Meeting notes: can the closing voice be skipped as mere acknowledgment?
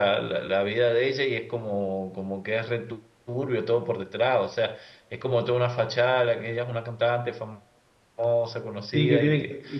No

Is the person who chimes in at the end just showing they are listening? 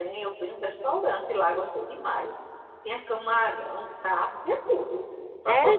No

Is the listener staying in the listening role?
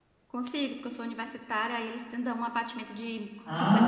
No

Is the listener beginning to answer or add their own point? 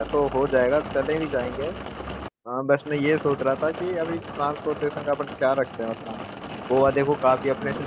No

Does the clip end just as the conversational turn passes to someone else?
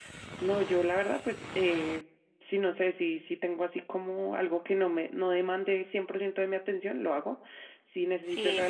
No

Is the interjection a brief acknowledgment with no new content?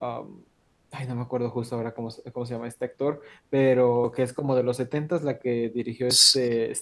No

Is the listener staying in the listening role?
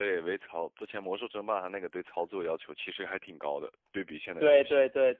No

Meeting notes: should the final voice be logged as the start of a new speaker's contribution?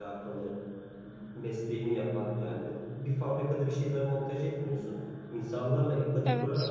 No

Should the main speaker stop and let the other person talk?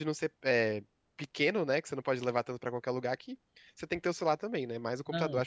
Yes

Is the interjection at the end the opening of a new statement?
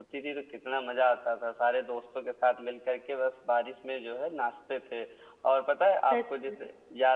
No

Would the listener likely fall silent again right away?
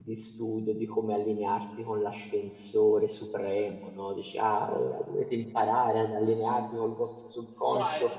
No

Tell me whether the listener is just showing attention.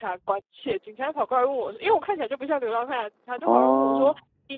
Yes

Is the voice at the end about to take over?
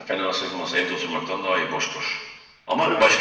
No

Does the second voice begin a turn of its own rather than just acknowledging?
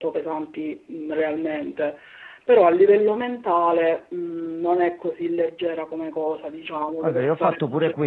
Yes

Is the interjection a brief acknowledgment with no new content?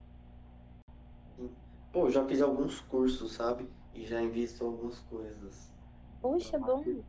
No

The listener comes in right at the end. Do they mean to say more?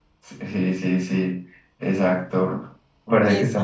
No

